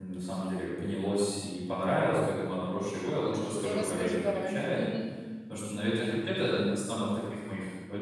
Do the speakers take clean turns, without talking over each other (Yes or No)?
No